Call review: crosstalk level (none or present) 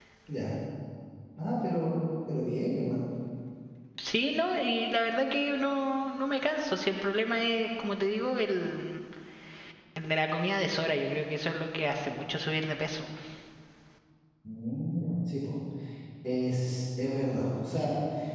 none